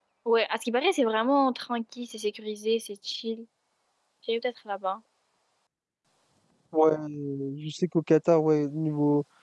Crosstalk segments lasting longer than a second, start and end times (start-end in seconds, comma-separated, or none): none